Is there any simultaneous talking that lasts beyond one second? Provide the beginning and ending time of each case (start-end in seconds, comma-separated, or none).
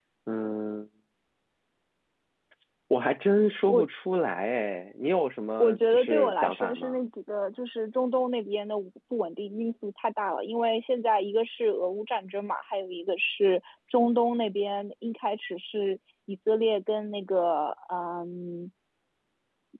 5.6-7.0